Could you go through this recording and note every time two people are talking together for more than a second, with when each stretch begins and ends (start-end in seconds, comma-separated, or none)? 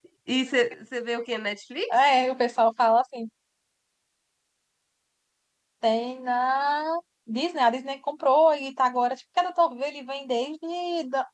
none